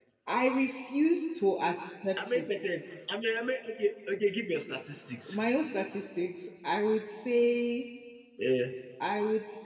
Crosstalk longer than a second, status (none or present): none